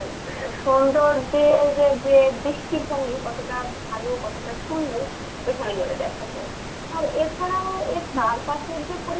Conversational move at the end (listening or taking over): listening